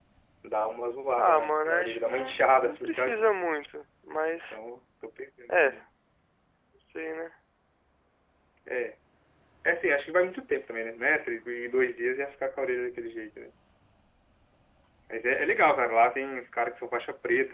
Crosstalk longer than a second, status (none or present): present